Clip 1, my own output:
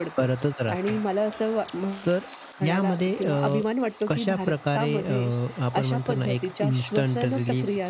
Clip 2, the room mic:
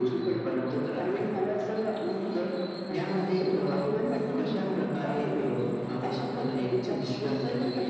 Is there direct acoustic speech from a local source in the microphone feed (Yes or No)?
No